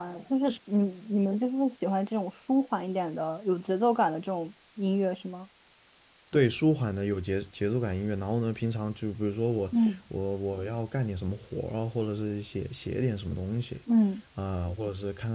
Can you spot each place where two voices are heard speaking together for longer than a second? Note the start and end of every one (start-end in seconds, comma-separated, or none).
none